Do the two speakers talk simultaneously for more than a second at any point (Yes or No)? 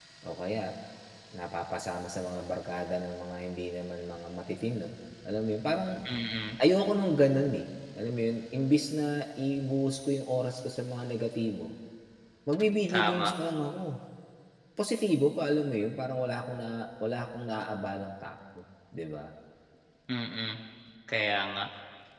No